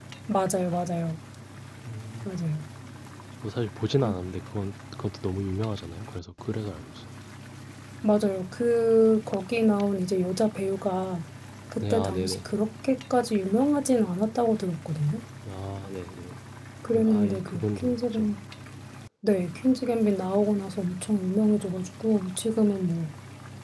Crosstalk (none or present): present